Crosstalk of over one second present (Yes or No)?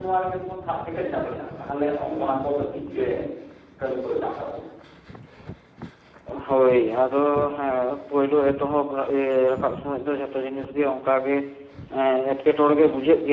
No